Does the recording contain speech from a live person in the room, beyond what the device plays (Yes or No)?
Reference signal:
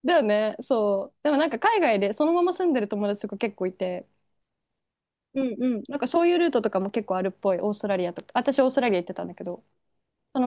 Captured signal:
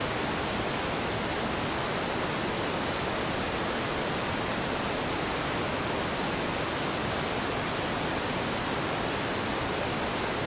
No